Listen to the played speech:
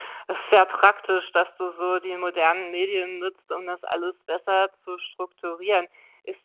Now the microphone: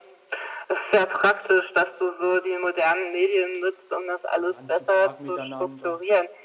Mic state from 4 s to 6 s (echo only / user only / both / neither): both